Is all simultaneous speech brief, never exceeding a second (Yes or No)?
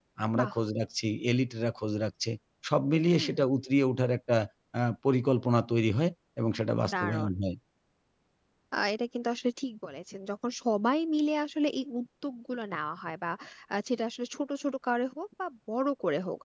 Yes